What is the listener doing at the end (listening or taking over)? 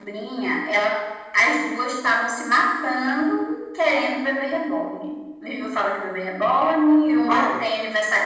listening